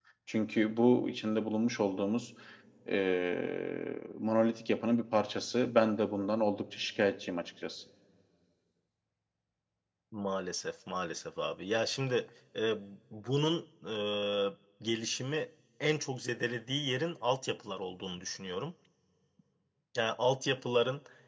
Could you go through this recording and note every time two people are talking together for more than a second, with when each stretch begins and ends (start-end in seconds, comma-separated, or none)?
none